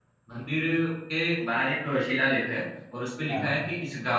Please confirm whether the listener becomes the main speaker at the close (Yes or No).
No